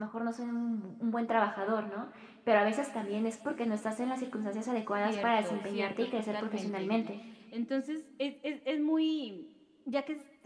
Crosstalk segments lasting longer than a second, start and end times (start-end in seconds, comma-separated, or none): 5.0-7.1